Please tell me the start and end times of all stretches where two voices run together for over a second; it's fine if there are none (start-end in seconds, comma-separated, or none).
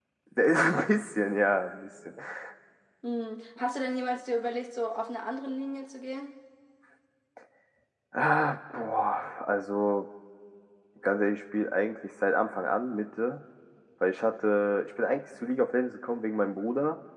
none